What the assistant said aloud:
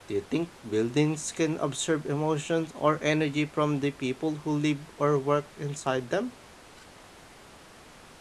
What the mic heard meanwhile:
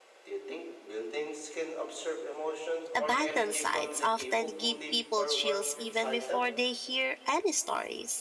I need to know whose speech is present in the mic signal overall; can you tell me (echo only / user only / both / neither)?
both